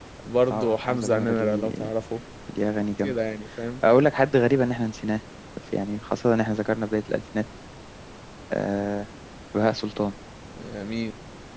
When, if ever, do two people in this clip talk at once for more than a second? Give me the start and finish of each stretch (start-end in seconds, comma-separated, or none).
0.5-1.8